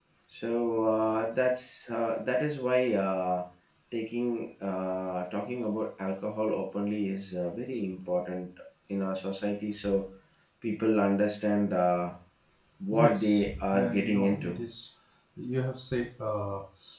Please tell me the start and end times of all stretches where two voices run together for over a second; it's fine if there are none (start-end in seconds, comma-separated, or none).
12.9-14.6